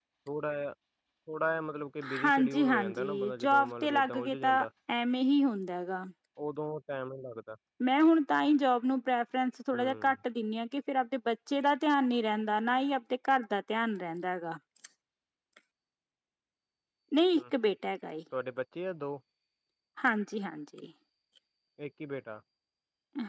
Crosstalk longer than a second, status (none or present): present